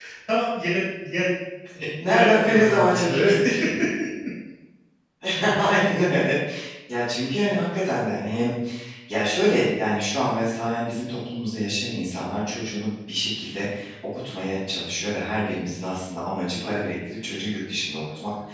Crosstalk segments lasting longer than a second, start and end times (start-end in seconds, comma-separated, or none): 2.0-3.3